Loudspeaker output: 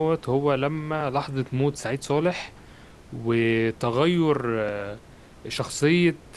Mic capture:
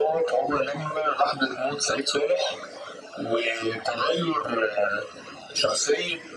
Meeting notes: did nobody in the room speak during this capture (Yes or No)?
Yes